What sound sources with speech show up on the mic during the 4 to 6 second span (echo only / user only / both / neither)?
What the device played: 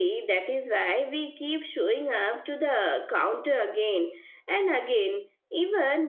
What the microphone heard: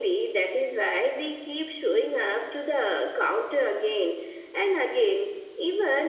echo only